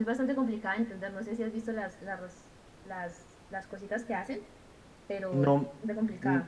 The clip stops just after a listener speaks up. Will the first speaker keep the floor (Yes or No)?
No